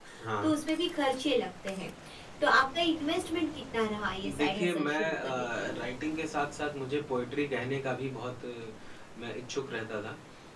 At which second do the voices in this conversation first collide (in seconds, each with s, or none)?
4.2 s